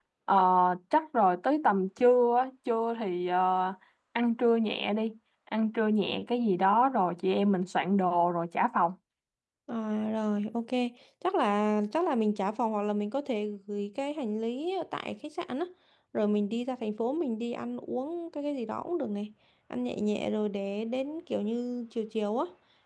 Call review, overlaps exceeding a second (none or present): none